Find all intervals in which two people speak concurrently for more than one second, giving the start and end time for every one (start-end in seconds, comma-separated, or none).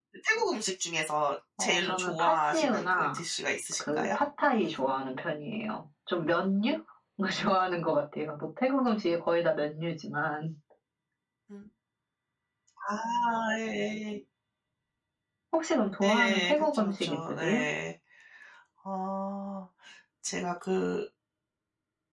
1.6-3.2, 16.0-17.6